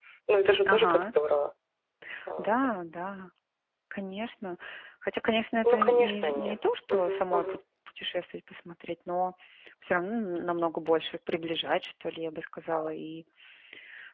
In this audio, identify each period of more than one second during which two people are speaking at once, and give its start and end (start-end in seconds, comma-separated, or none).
5.6-7.6